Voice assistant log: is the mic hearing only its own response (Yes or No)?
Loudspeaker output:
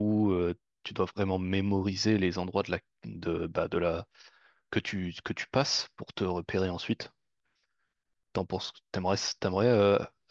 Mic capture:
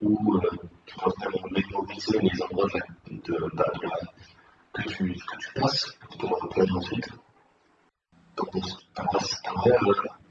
Yes